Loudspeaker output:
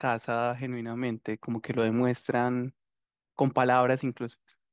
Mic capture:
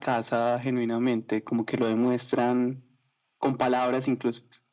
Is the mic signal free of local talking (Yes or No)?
Yes